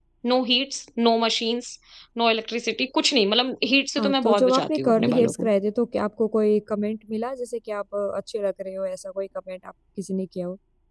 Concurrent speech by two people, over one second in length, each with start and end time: 4.0-5.5

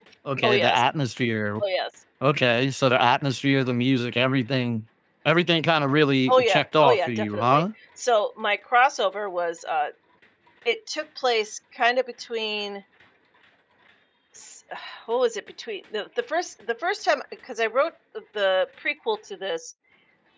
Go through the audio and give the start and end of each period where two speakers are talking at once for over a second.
6.3-7.6

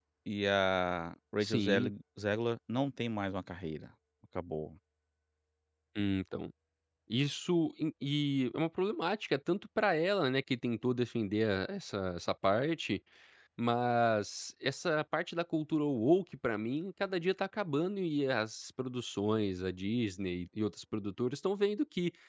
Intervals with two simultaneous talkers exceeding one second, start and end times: none

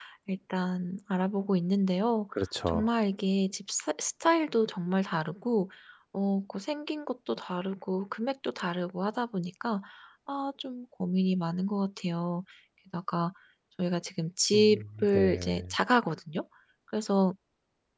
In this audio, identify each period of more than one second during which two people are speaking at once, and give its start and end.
14.5-15.7

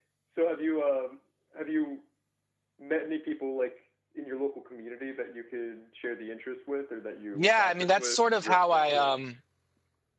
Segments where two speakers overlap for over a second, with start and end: 7.3-9.2

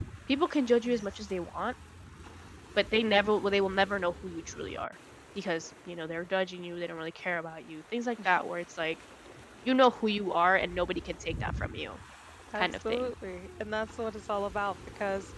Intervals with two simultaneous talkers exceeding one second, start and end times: none

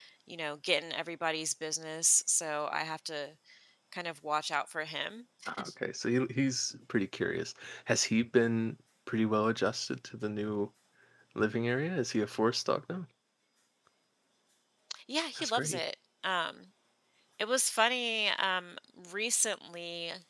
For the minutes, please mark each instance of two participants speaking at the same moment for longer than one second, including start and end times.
none

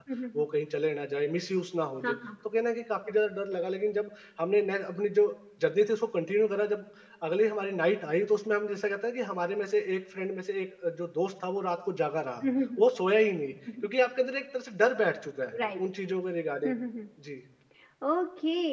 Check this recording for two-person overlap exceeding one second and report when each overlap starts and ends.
none

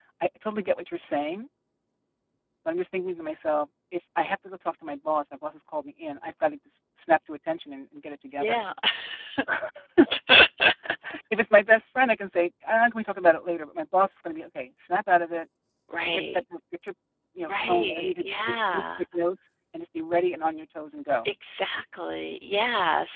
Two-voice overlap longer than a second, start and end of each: 17.5-18.8

